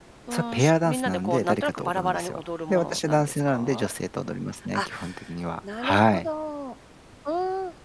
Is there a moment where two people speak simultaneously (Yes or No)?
Yes